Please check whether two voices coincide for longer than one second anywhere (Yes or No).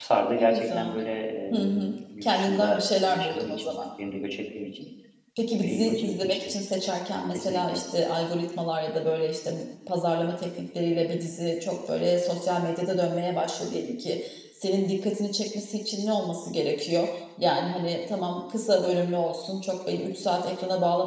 Yes